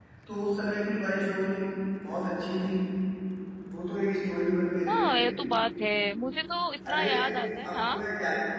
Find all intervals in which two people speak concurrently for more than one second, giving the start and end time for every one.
none

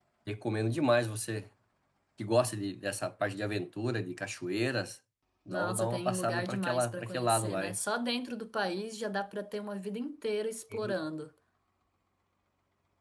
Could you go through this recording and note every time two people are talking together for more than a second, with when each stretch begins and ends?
5.5-7.8

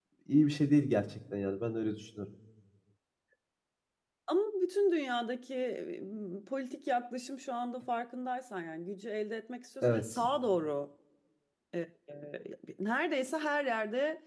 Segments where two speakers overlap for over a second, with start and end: none

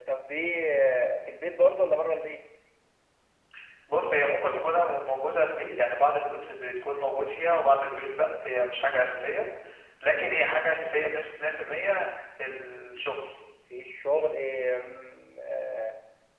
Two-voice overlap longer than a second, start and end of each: none

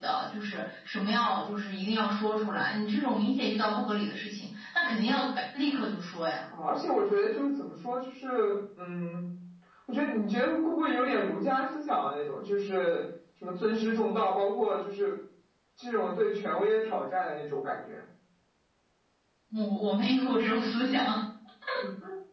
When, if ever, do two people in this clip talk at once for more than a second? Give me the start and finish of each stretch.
none

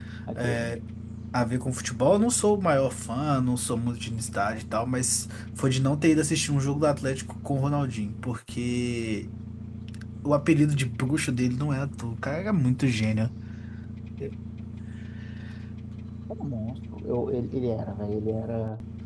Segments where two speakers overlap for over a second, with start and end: none

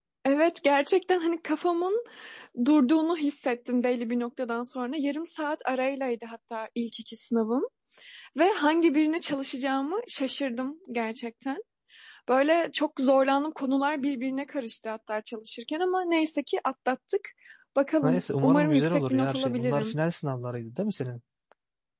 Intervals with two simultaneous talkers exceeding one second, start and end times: 18.0-19.9

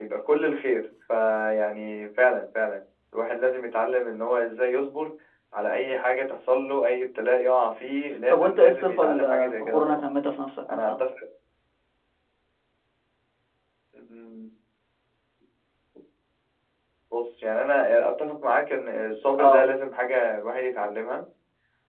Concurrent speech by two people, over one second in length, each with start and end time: 8.3-10.0

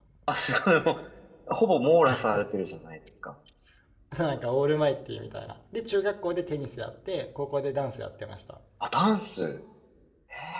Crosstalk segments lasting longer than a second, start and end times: none

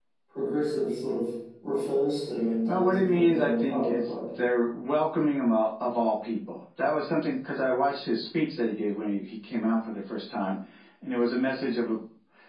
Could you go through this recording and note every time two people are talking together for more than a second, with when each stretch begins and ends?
2.7-4.1

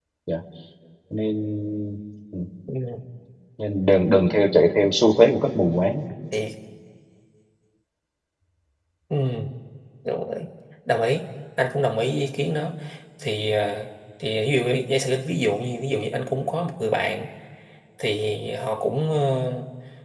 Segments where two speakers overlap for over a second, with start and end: none

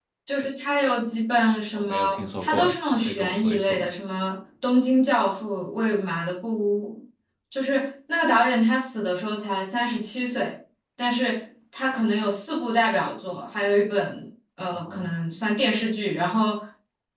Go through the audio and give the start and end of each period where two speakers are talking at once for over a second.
1.7-3.9

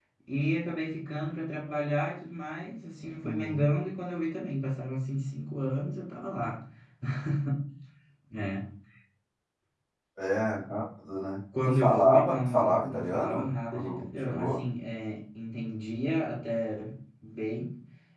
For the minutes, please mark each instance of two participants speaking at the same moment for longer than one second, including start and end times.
11.6-14.7

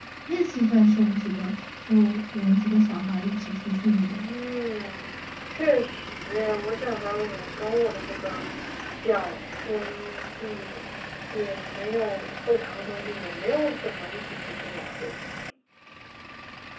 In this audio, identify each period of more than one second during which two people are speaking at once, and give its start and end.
none

